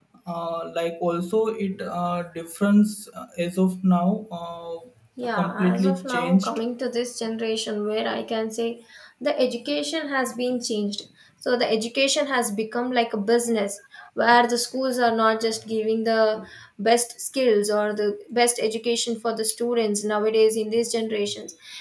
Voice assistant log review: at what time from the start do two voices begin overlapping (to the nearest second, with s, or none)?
5 s